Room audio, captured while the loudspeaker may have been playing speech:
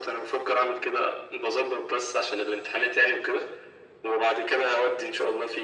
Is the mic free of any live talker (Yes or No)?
Yes